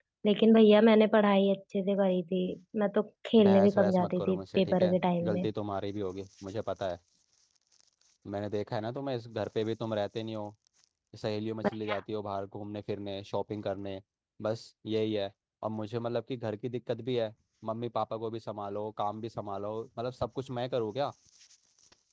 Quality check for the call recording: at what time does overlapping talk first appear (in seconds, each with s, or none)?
3.4 s